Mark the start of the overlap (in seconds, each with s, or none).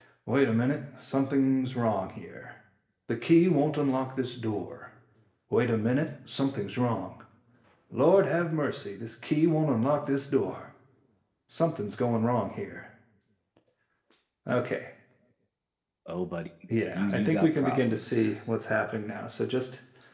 16.9 s